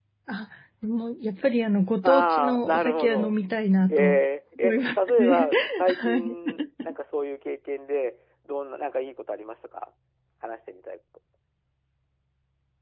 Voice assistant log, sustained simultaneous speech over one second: present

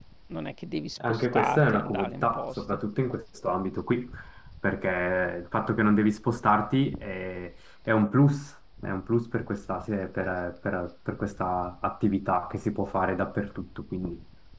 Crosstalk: present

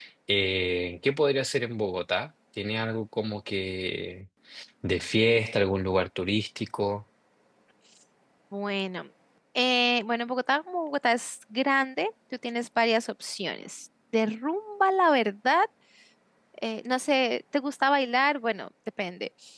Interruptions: none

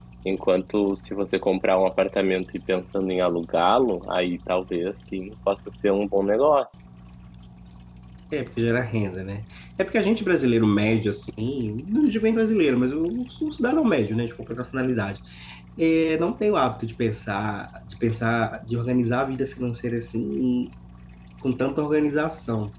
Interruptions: none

